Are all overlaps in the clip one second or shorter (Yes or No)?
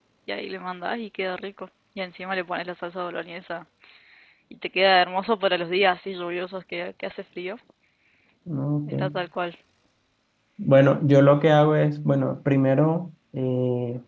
Yes